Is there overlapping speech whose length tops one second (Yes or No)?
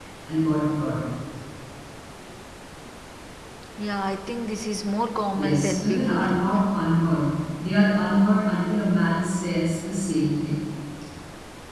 Yes